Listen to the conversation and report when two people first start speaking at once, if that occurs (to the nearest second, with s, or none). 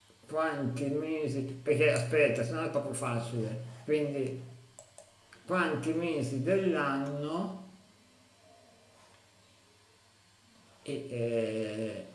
none